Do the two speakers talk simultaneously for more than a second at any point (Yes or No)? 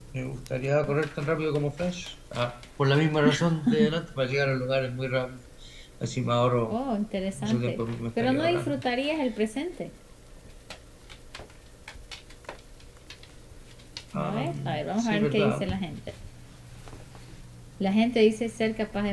Yes